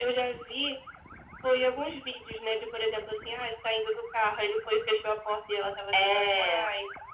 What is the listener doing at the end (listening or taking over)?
listening